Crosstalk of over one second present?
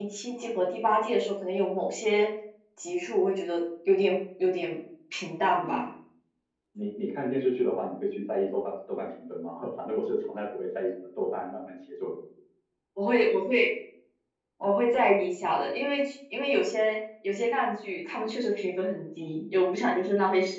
No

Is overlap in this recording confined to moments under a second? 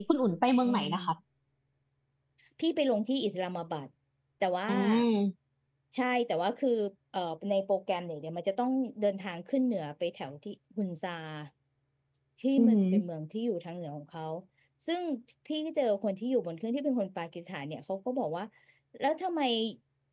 Yes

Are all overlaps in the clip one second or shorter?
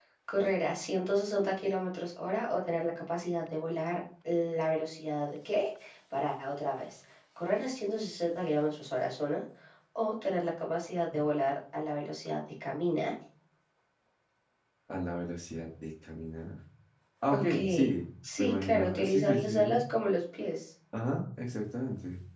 No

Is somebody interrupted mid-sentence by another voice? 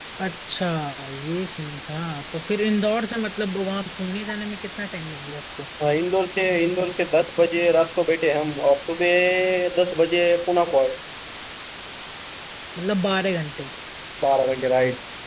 No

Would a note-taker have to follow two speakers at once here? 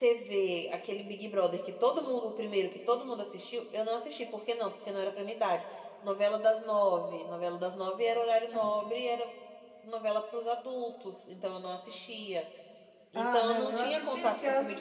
Yes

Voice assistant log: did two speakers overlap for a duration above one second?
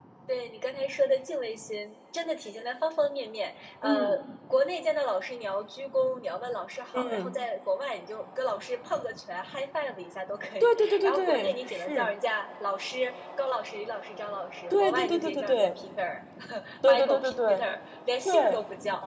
Yes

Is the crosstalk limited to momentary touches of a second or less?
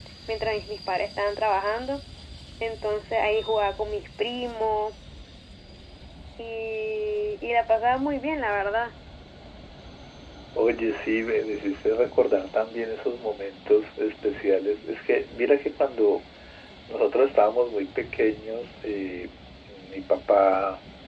Yes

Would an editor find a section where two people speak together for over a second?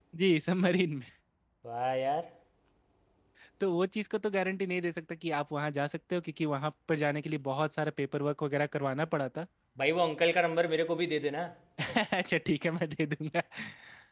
No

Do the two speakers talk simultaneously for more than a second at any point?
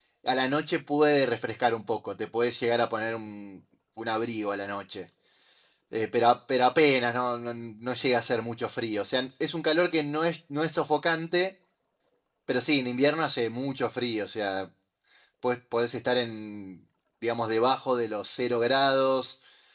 No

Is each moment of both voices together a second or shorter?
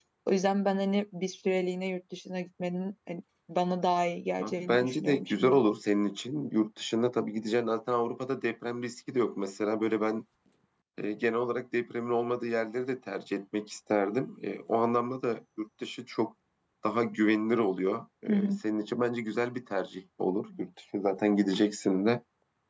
No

